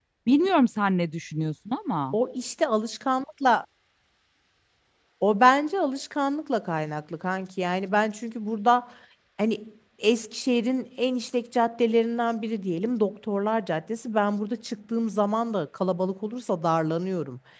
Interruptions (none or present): none